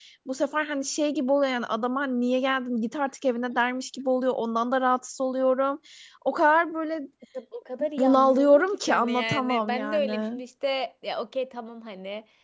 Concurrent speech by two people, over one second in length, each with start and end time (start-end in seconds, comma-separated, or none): 8.0-10.4